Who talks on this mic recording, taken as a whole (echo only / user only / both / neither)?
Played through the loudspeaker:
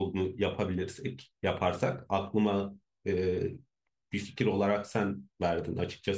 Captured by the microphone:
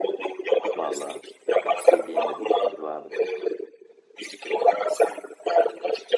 both